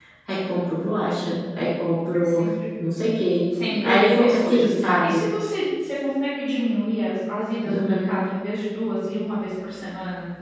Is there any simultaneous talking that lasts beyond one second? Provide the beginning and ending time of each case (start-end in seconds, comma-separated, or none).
3.8-5.2